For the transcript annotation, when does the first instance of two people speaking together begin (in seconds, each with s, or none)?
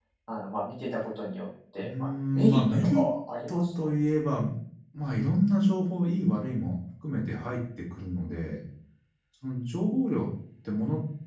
1.8 s